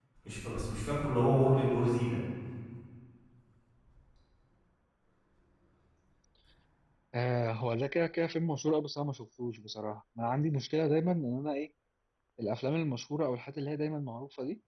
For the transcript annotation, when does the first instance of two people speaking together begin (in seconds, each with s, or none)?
none